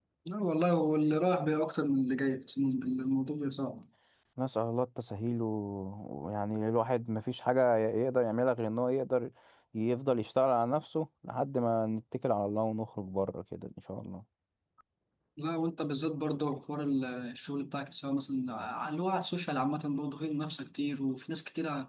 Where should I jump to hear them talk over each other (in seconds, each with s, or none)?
none